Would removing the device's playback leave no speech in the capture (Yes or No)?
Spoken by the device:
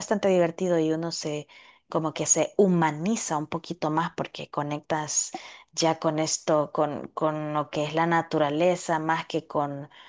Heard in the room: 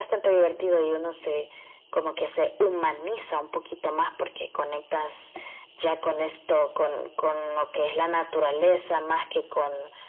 Yes